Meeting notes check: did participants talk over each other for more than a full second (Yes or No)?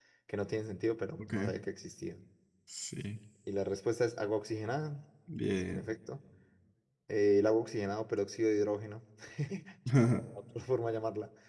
No